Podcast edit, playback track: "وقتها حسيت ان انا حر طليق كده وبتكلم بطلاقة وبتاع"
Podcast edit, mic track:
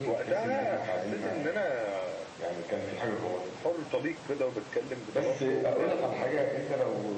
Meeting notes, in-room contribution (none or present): present